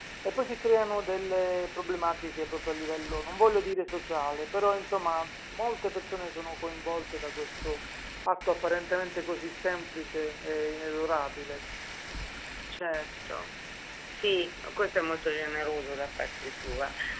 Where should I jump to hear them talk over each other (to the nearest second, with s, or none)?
none